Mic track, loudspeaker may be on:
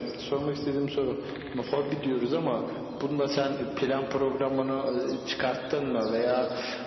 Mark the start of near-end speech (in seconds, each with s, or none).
none